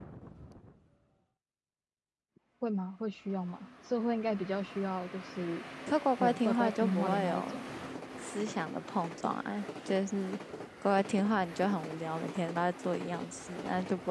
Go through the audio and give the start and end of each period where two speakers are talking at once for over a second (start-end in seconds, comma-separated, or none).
6.2-7.6